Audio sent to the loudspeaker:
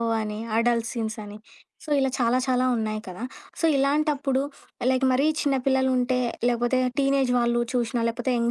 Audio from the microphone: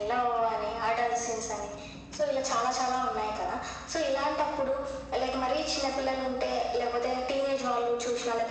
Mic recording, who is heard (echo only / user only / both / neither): echo only